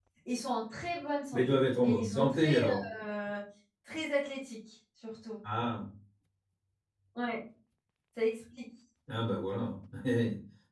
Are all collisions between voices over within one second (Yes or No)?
No